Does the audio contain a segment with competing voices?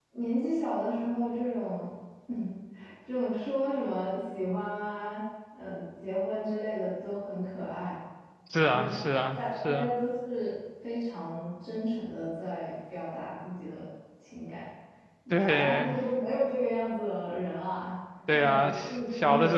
Yes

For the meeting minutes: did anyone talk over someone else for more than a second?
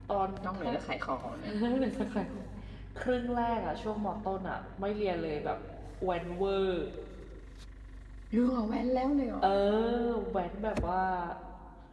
No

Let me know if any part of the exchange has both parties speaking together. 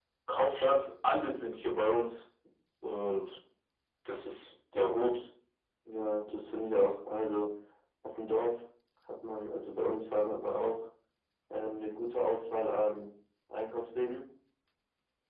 No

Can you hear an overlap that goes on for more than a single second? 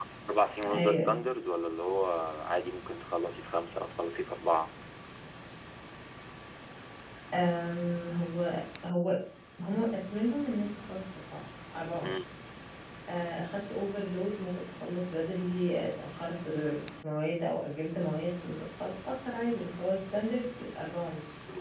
No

